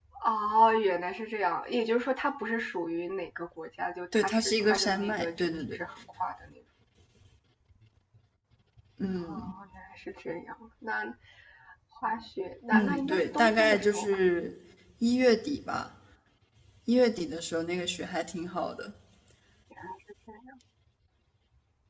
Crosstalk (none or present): present